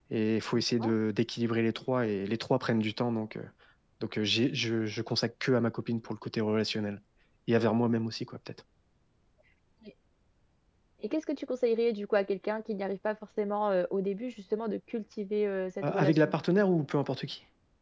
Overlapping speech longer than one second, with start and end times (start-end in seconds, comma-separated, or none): none